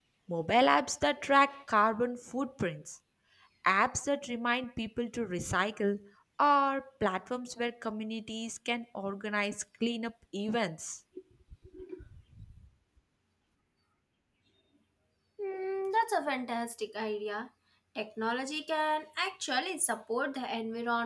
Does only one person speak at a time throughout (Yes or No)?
Yes